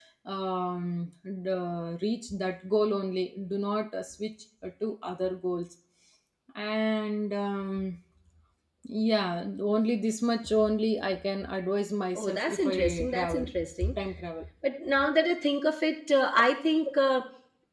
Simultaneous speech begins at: 12.2 s

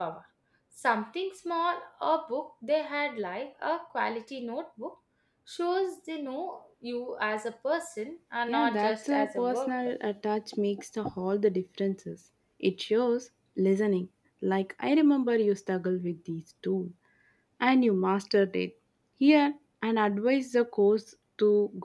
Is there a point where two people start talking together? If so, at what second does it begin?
8.5 s

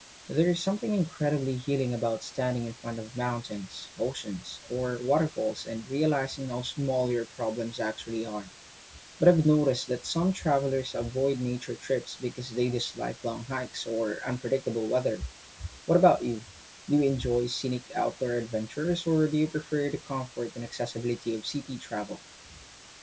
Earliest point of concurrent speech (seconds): none

